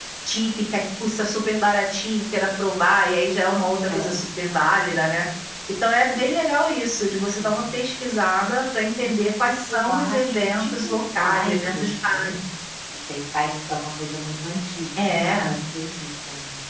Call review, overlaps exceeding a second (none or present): present